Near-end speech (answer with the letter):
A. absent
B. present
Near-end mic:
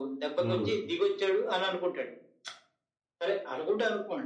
B